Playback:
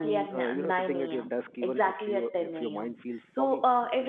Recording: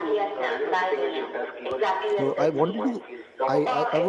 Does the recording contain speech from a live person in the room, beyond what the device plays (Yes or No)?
Yes